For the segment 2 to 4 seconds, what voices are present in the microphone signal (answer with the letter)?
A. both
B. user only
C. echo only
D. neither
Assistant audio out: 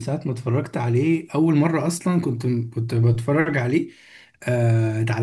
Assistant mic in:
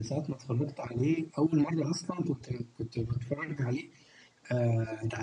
C